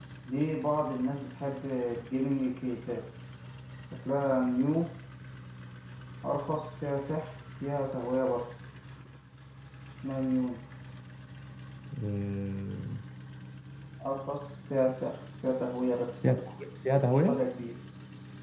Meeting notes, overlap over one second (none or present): none